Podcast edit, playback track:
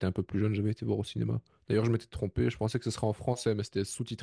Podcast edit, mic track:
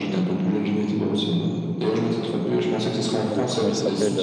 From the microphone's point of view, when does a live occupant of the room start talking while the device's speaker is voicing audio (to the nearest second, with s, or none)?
3 s